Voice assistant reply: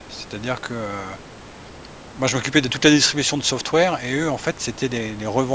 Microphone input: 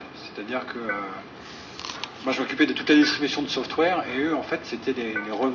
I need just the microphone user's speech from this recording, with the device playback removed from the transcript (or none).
none